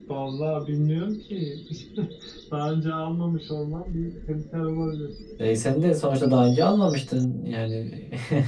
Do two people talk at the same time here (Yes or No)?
No